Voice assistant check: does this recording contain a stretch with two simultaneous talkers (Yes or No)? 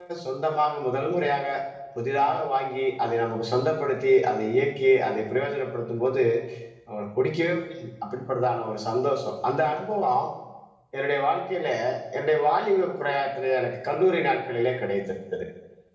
No